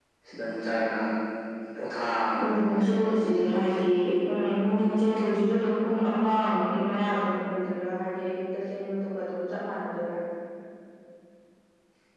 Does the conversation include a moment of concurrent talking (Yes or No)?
Yes